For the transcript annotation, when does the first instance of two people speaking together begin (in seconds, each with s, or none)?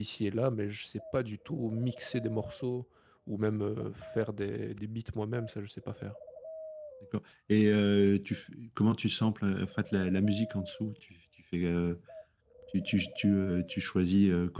none